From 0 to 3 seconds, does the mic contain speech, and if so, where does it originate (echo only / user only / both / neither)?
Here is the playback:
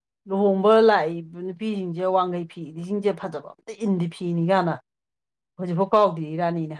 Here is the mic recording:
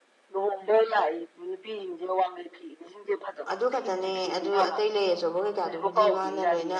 echo only